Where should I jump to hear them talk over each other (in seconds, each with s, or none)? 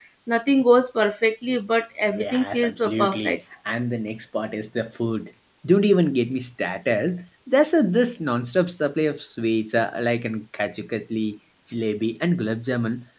2.2 s